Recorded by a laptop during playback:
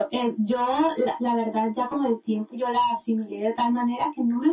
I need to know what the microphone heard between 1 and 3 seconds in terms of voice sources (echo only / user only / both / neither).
echo only